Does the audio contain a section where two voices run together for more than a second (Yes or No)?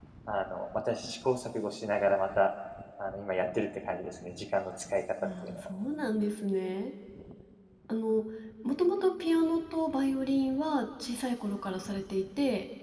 No